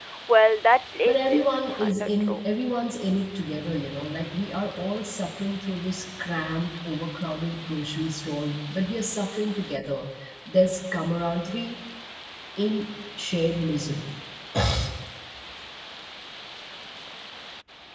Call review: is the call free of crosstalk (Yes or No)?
No